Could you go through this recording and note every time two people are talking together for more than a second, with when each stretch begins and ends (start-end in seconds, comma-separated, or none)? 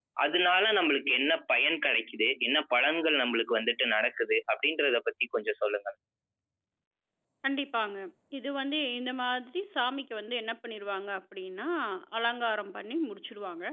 none